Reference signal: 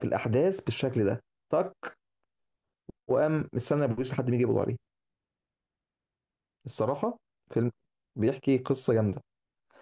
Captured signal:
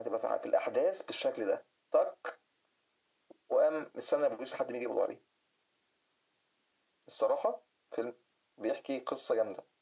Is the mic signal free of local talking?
Yes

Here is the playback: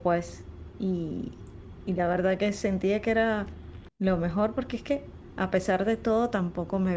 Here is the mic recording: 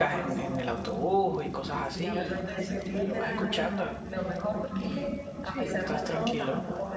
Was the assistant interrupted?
Yes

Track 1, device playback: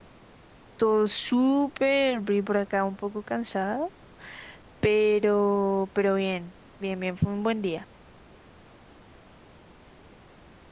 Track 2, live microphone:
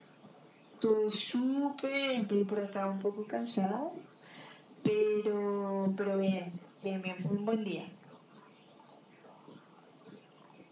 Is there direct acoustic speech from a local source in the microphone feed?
No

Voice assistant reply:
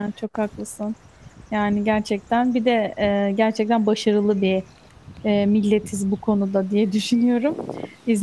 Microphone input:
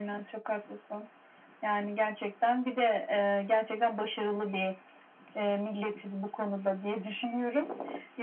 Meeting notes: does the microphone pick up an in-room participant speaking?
No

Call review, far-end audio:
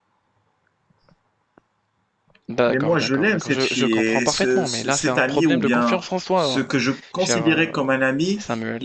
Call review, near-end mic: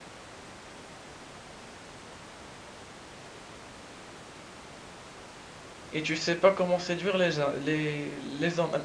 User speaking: Yes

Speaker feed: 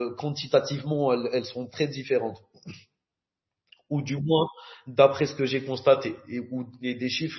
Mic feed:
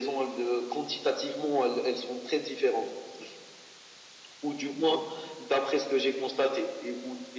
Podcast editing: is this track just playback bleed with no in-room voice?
Yes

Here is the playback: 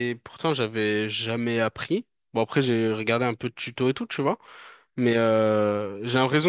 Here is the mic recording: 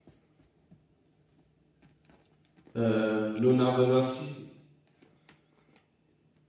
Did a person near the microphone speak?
Yes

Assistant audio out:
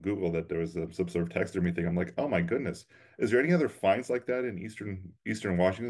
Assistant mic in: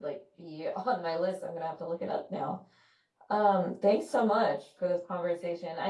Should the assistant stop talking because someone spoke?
Yes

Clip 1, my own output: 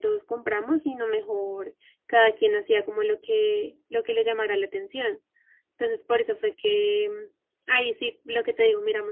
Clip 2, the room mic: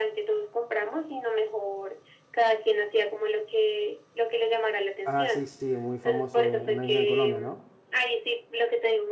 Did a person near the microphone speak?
Yes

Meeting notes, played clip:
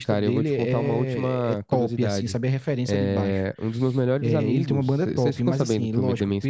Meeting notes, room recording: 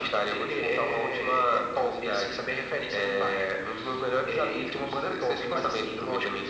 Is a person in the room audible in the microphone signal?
No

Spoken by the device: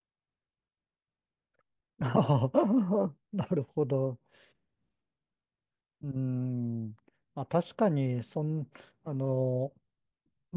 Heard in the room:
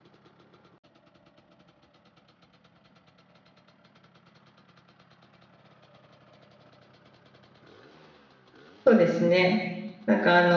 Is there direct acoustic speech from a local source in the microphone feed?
Yes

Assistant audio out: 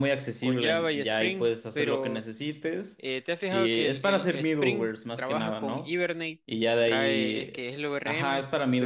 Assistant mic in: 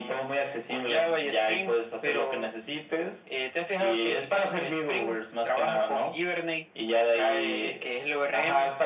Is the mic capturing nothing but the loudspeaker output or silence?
Yes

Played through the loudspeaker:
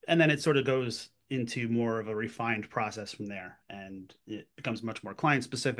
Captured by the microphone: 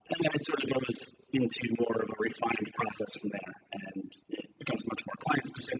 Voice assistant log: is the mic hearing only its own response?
Yes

